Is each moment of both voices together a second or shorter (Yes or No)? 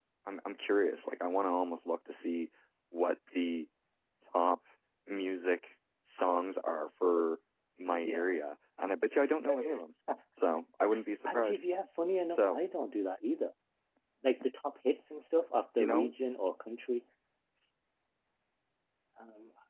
Yes